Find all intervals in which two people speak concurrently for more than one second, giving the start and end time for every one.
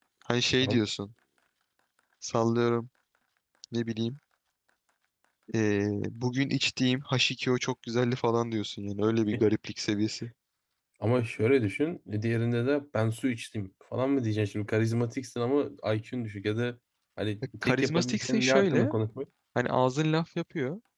17.6-18.9

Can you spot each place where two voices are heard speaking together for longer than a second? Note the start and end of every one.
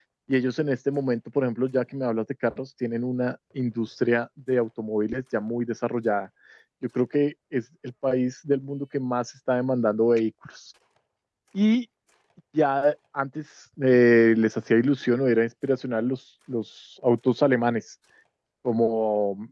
none

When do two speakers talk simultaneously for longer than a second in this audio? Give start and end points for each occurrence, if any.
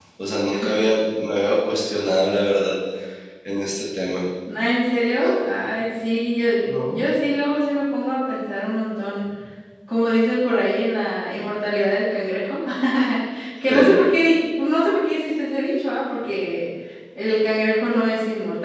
none

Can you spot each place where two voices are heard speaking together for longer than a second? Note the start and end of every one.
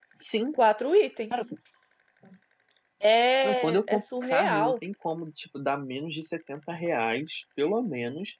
3.4-4.7

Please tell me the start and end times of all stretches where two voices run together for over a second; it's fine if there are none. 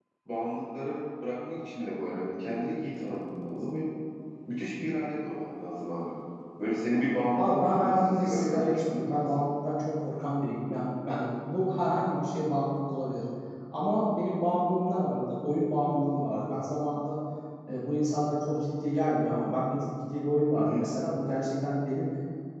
7.4-9.4

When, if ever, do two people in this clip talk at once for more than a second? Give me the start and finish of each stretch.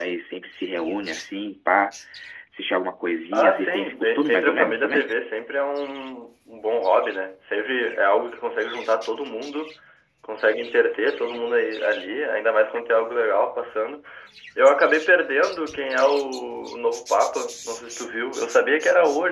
3.3-5.1

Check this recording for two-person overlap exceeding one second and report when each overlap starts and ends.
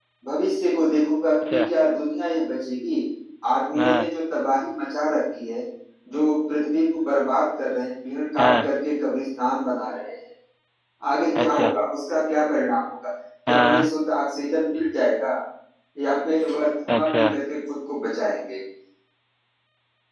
none

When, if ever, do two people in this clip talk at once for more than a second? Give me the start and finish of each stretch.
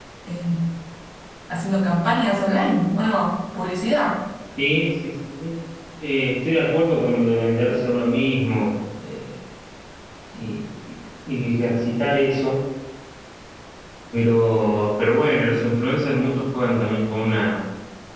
none

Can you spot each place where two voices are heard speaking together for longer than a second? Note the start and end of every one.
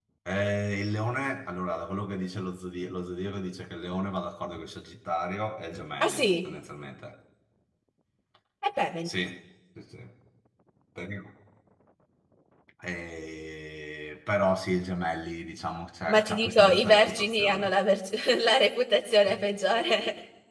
16.1-17.7

